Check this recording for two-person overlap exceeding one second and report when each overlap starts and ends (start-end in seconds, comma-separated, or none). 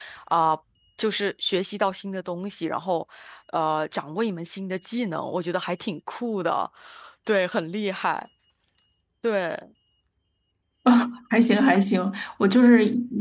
none